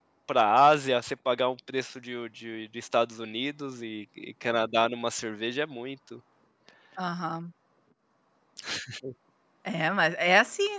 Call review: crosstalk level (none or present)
none